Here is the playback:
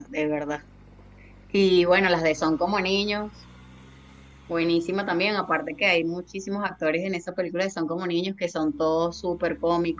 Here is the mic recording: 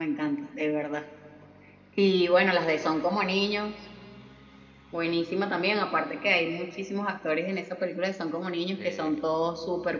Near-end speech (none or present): present